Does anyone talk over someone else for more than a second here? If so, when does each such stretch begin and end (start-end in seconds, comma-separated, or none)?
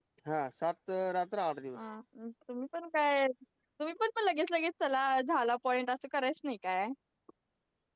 none